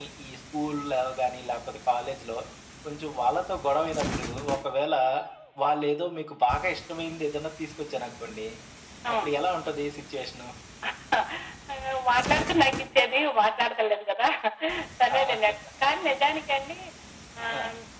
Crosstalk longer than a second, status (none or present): none